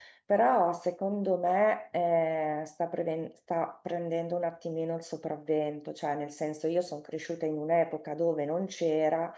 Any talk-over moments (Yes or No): No